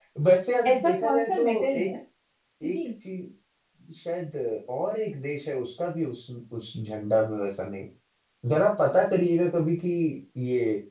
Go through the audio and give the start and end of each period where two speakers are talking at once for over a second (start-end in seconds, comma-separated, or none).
0.6-1.9